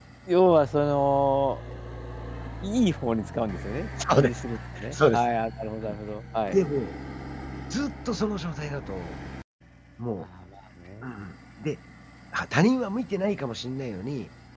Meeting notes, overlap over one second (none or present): none